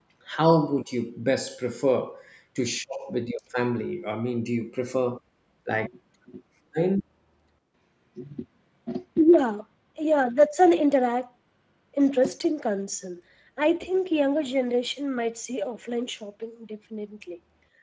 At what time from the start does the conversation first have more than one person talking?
none

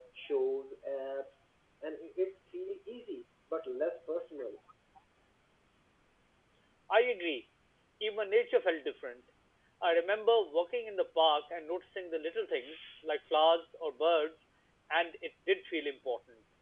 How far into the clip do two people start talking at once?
none

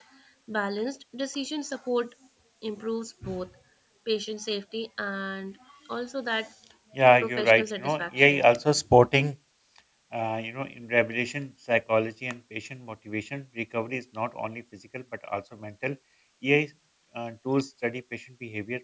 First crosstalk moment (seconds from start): 7.2 s

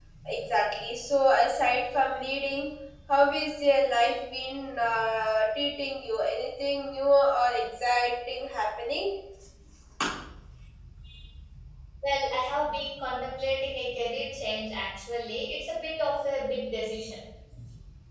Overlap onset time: none

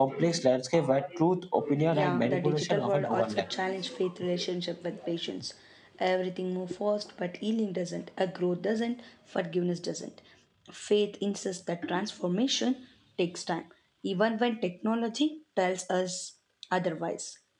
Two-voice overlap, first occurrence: 1.9 s

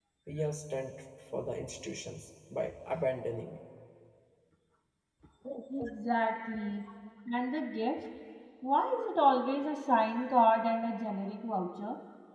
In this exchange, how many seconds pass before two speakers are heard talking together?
none

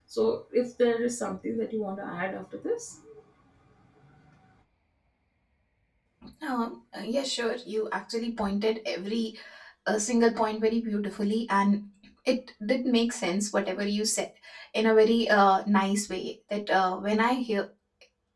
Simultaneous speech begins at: none

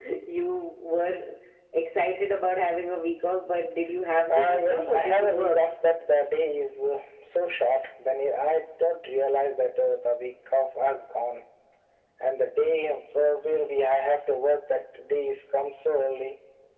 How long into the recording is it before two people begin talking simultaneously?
4.3 s

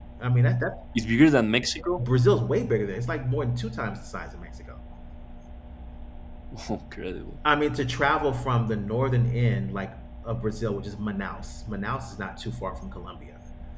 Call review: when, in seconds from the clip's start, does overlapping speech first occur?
none

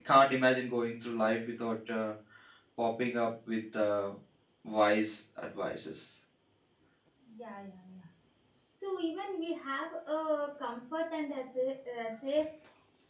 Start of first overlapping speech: none

